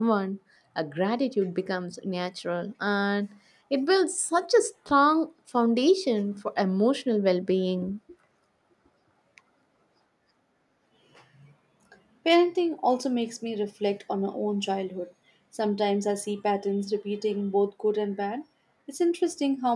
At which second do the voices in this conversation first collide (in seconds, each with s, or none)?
none